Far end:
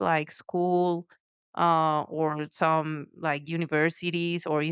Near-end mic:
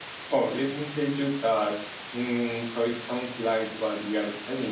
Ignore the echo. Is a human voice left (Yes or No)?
Yes